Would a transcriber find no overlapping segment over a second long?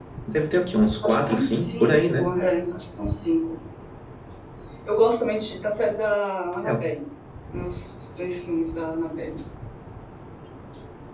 No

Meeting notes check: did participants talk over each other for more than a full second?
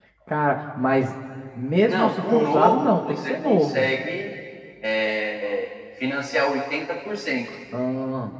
Yes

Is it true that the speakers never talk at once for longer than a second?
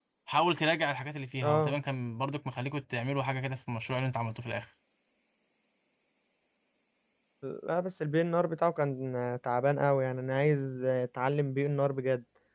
Yes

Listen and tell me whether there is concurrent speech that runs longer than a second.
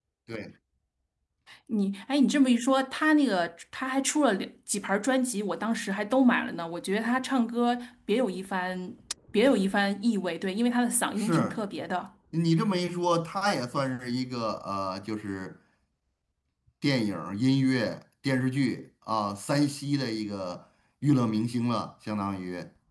No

